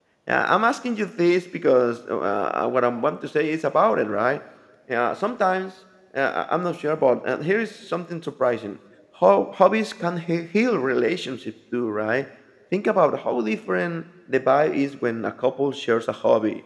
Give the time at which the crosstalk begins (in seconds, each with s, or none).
none